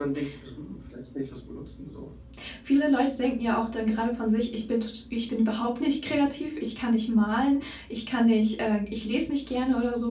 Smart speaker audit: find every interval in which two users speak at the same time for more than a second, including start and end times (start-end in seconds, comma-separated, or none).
none